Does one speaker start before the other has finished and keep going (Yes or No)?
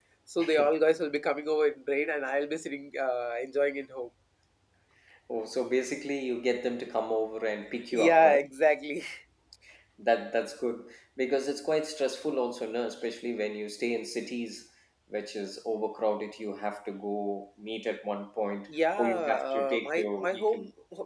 Yes